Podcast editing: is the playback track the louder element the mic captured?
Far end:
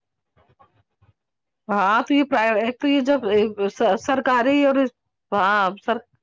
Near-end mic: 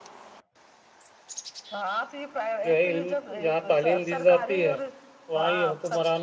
No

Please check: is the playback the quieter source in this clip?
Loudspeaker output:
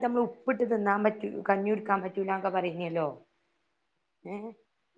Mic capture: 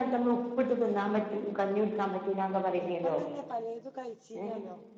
No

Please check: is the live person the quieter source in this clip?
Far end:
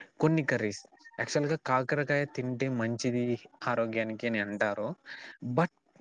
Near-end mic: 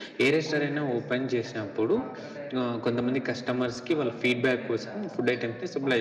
No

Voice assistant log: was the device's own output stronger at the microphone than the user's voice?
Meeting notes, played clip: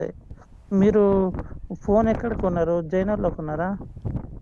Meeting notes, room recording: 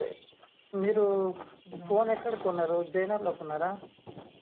Yes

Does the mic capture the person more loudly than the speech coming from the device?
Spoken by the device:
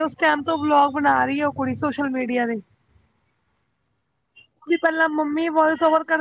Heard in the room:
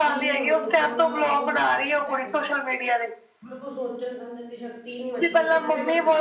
No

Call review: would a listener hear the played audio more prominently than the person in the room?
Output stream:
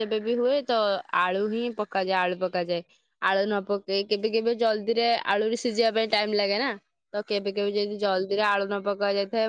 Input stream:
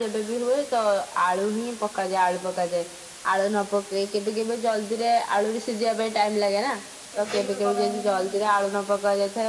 Yes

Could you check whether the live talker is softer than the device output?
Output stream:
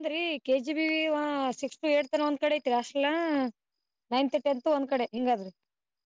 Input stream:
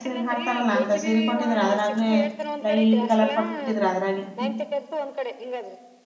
No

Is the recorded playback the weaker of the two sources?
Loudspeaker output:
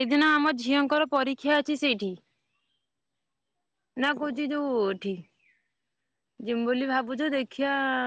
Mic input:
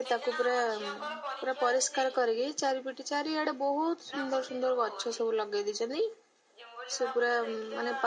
Yes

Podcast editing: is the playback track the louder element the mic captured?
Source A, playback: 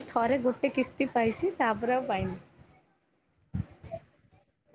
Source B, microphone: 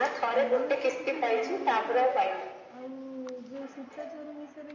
Yes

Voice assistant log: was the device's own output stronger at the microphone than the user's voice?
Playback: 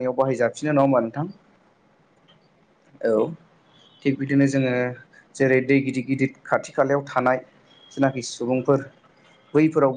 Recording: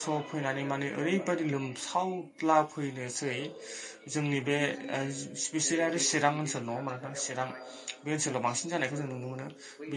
No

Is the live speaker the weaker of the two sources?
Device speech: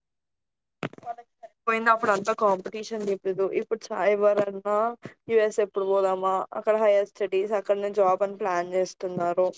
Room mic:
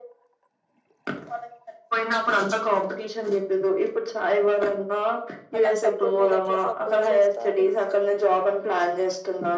Yes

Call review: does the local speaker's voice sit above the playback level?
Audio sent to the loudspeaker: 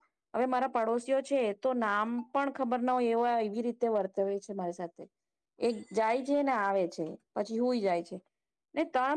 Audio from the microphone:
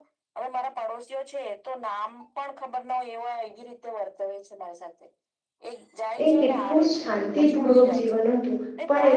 Yes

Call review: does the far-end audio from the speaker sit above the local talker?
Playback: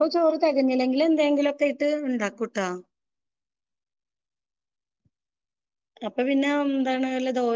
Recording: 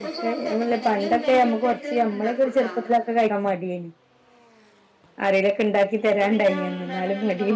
No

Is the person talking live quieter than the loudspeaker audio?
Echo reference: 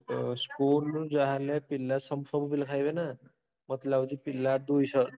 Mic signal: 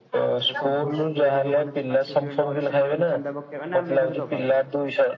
Yes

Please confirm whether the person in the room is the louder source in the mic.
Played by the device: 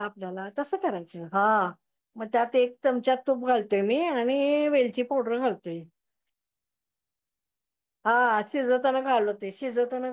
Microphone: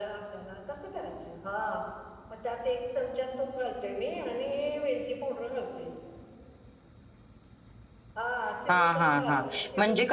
Yes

